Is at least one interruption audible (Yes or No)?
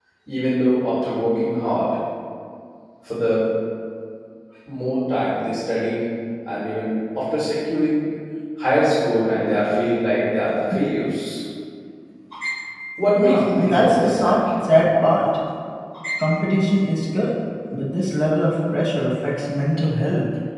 Yes